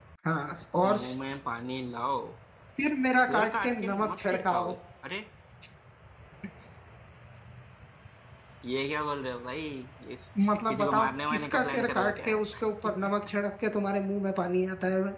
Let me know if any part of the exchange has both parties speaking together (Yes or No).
Yes